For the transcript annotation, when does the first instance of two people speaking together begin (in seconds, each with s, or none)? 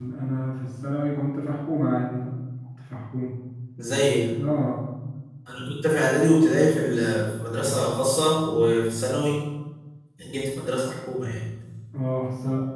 none